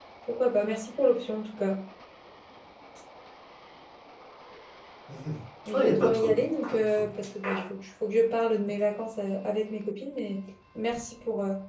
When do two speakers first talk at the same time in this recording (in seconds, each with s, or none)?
5.7 s